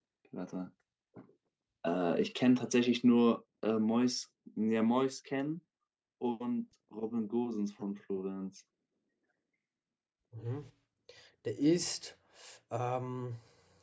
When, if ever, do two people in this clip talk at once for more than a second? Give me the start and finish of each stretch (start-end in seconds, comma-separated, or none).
none